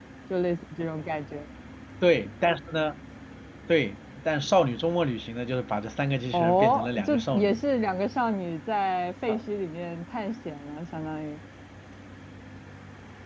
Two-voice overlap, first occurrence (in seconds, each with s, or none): 6.3 s